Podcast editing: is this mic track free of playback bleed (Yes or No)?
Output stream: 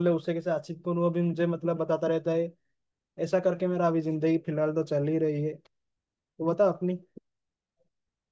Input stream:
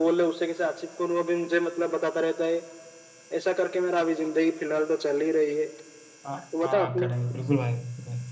No